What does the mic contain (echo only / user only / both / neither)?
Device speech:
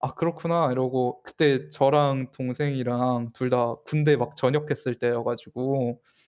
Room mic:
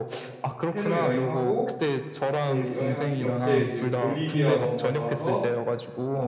both